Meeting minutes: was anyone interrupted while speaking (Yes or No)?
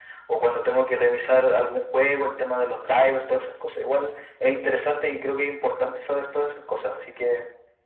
No